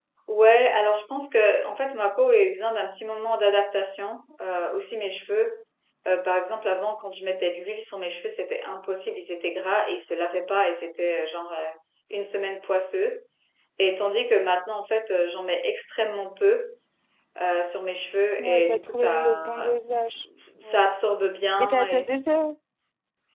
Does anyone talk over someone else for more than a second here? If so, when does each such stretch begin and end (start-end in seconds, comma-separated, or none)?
18.4-19.8